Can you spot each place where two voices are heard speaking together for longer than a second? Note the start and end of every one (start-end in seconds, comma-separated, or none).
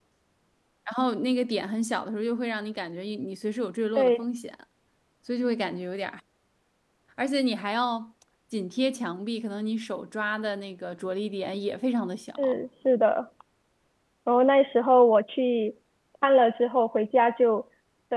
none